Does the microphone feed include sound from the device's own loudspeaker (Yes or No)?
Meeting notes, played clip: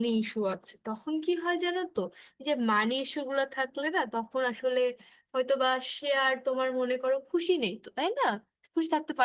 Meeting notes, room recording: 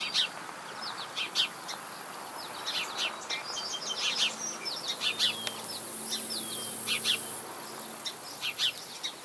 No